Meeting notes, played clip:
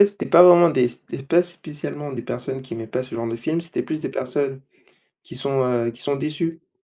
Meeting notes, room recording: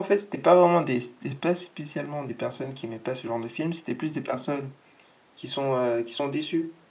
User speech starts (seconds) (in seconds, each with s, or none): none